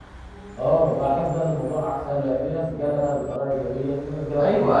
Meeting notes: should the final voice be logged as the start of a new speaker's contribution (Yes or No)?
Yes